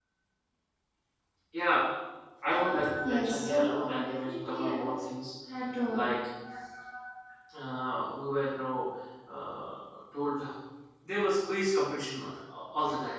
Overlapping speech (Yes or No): Yes